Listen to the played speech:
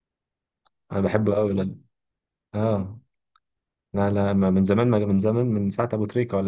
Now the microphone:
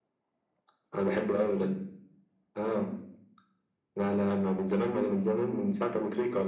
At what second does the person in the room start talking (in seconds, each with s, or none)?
none